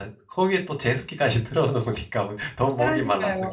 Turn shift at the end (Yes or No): Yes